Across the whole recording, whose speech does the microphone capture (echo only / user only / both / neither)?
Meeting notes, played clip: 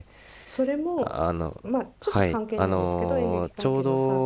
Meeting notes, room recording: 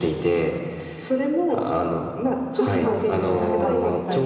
both